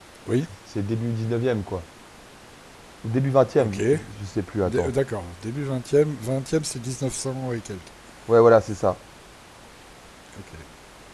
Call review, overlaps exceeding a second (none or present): none